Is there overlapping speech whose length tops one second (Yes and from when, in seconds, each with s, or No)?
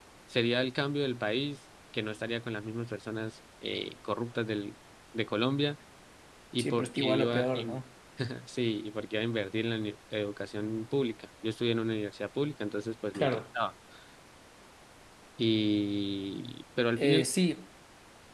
Yes, from 6.6 s